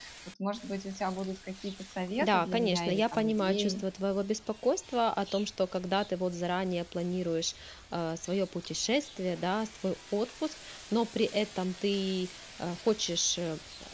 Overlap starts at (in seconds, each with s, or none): 2.2 s